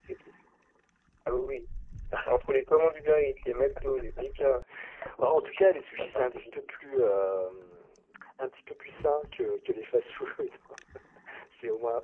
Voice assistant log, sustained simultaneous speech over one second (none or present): present